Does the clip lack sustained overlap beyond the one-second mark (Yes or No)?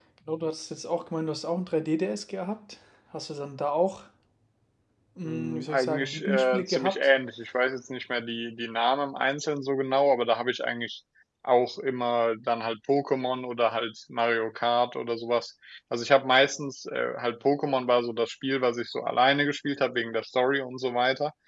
No